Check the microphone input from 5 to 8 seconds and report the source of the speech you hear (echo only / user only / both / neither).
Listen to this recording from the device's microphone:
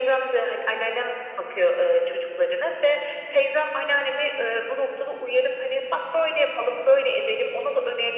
echo only